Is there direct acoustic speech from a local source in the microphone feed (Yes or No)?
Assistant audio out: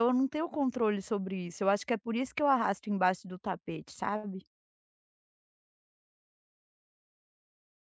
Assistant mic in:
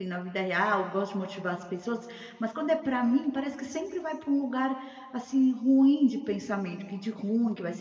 Yes